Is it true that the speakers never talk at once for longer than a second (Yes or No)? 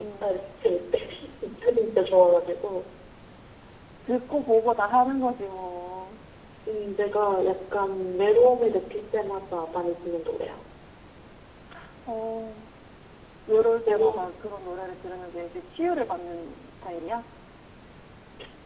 Yes